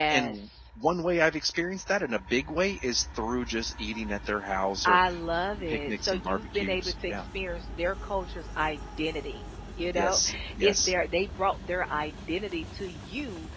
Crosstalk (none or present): present